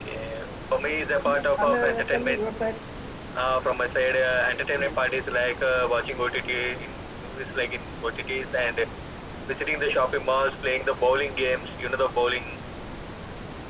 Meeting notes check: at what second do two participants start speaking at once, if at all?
1 s

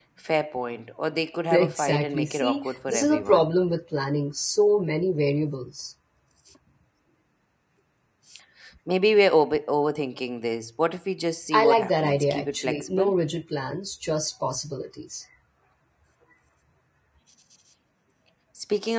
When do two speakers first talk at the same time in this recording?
2 s

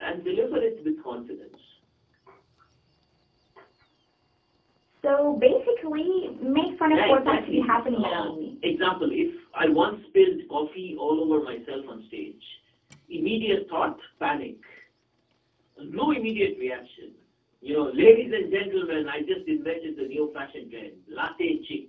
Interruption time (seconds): 7 s

